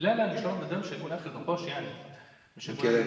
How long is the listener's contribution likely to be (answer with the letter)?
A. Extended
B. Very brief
B